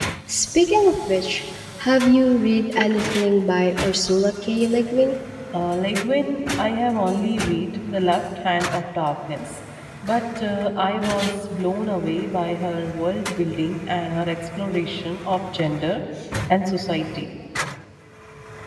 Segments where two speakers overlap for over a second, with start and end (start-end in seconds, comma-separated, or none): none